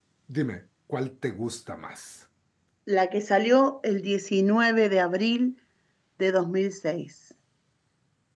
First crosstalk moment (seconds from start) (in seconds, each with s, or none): none